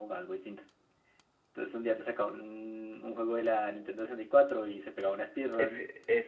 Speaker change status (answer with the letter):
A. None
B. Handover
B